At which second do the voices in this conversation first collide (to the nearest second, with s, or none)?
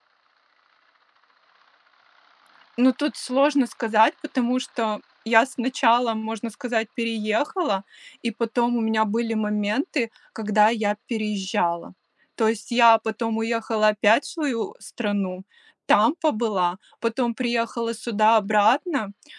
none